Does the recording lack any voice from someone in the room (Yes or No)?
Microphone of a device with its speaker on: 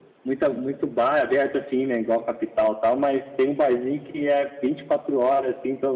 Yes